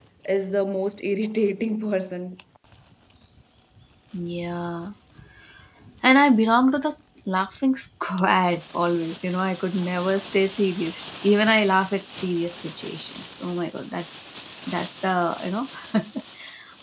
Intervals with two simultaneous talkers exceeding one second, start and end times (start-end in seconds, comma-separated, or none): none